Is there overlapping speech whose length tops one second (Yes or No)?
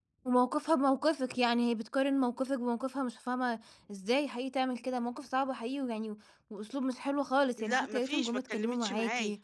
Yes